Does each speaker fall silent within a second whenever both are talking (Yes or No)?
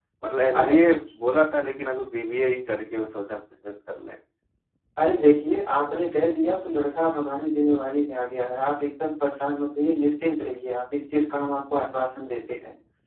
Yes